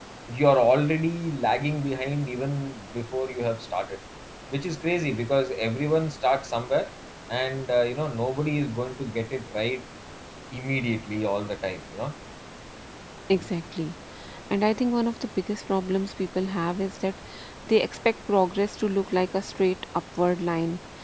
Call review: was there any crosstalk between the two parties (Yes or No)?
No